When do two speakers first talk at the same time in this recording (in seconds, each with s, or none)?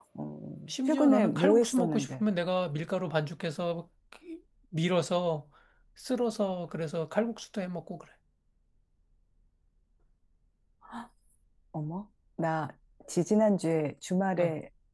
0.9 s